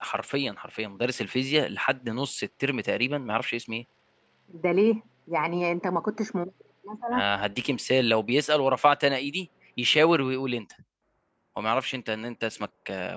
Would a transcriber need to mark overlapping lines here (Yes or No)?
No